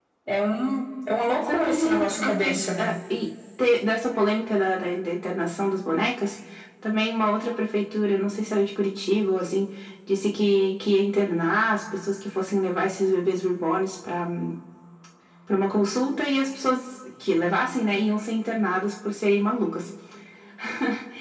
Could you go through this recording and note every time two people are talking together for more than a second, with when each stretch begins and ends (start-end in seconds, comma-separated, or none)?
1.4-2.9